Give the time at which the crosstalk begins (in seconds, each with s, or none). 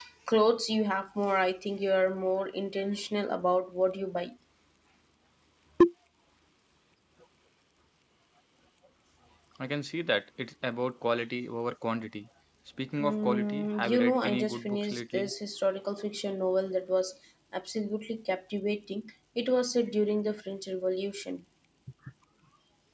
13.0 s